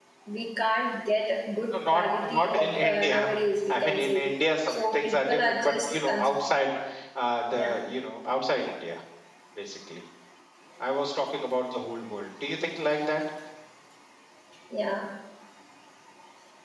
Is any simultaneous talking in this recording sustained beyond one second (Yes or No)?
Yes